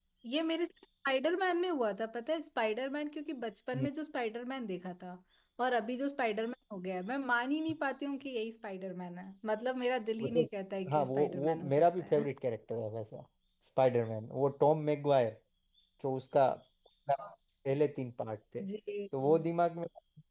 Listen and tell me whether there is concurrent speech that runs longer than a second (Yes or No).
Yes